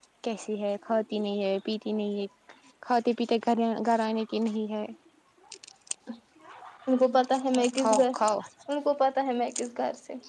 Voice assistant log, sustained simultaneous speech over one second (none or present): none